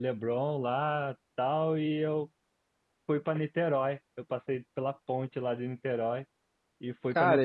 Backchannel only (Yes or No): No